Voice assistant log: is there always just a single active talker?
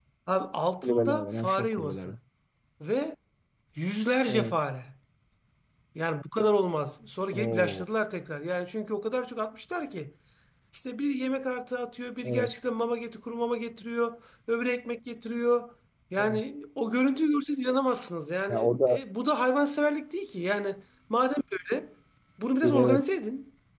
No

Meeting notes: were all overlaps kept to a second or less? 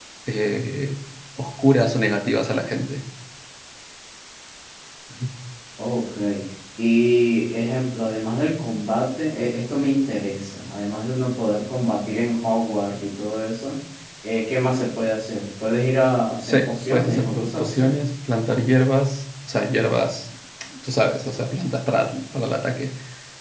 No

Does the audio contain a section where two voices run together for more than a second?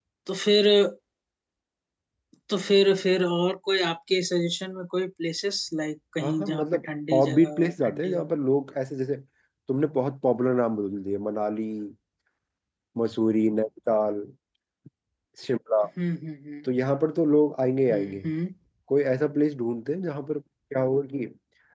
Yes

